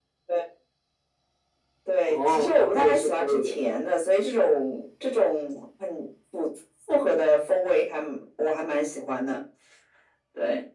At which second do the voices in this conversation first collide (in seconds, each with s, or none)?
2.1 s